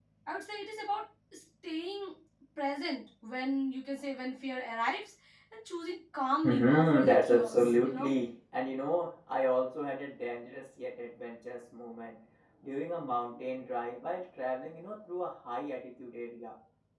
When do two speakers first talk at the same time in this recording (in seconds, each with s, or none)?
6.4 s